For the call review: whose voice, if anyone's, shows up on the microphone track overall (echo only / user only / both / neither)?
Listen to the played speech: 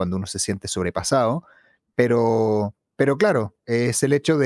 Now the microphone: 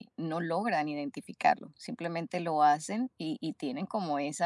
user only